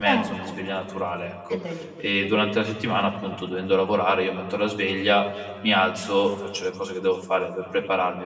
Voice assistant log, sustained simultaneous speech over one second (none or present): none